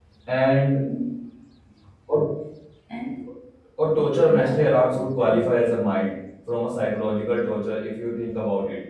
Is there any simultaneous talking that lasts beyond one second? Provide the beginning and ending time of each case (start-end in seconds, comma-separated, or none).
4.2-5.5